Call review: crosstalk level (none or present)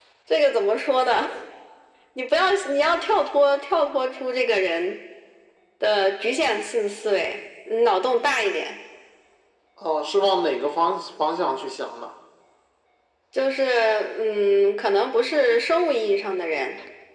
none